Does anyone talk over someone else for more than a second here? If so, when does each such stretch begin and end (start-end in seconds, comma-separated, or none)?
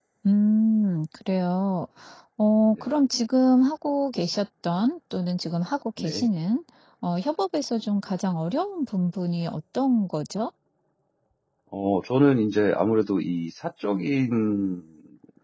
none